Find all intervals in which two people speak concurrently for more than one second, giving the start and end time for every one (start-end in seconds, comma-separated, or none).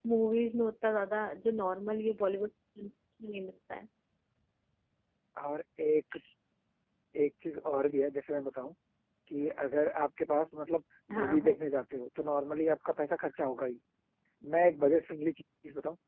none